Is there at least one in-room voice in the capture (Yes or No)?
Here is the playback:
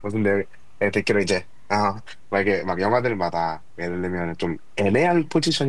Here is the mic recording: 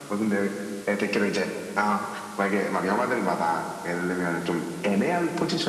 No